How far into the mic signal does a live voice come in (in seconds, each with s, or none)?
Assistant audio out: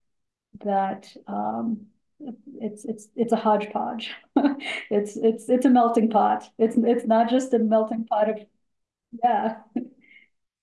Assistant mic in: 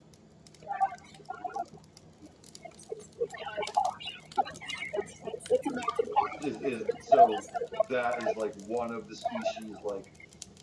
6.4 s